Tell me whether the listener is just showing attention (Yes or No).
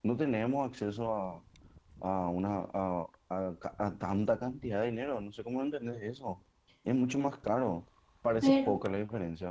Yes